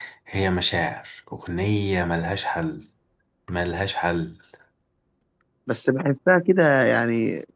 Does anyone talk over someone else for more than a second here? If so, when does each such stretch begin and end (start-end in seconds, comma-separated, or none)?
none